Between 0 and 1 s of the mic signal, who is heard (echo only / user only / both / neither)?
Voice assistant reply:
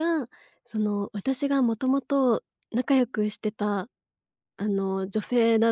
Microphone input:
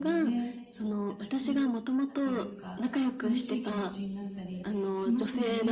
both